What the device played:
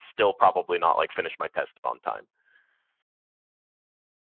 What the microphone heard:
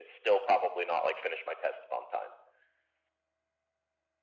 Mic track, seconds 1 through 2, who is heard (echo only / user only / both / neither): echo only